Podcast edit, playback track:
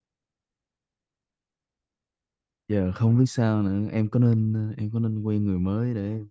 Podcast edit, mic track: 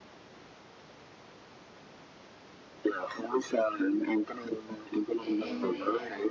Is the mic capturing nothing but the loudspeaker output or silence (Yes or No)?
No